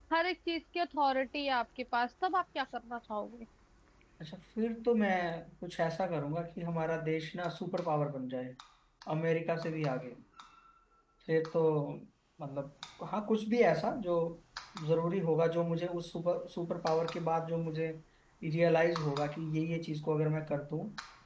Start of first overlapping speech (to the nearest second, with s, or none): none